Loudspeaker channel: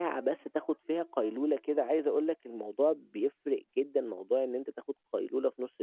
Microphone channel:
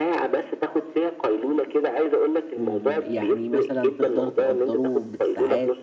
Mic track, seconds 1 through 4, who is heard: both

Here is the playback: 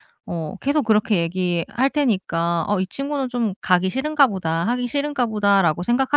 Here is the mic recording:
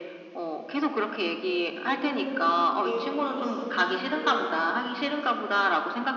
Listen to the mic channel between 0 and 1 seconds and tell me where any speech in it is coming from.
echo only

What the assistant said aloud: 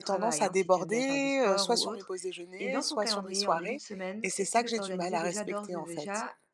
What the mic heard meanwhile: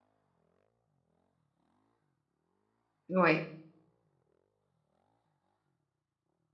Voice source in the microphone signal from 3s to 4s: user only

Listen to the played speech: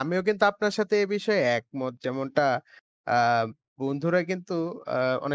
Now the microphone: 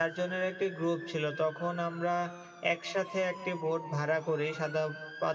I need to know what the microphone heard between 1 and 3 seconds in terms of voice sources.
user only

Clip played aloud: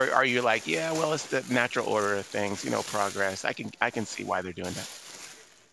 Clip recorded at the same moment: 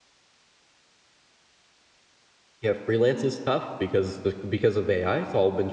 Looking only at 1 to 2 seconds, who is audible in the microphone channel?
neither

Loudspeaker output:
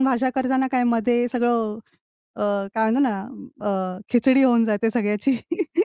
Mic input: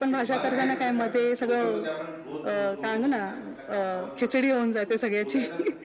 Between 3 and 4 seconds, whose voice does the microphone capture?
both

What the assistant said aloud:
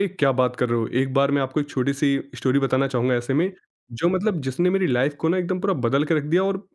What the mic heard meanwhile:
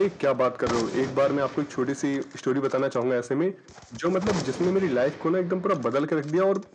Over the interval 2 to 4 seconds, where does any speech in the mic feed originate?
echo only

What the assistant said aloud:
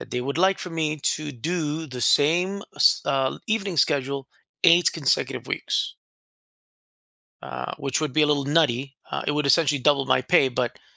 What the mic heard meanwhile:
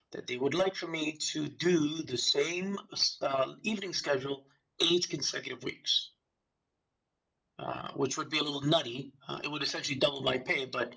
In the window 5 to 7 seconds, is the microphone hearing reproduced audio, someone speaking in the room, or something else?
echo only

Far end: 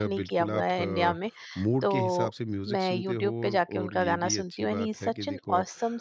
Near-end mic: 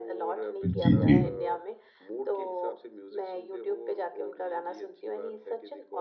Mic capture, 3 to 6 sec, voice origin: echo only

